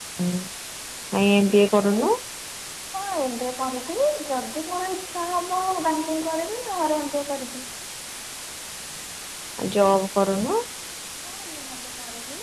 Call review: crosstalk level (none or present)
none